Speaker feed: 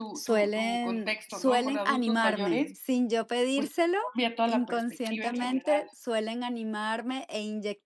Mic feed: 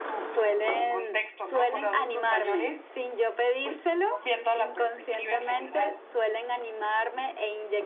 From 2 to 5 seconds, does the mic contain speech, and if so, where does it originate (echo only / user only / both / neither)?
echo only